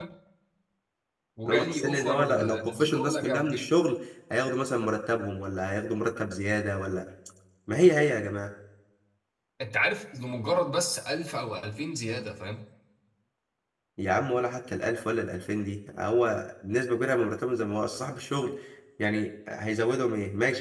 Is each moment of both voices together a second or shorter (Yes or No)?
No